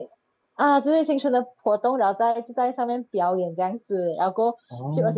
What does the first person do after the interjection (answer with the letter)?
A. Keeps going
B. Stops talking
A